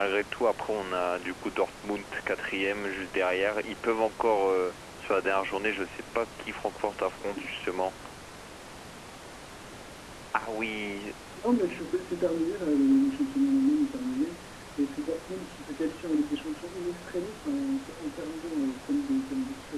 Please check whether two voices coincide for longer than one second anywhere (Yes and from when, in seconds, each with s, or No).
No